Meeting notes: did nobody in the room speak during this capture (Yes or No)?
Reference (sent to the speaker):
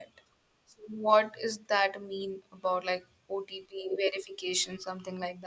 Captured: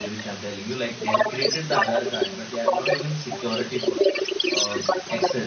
No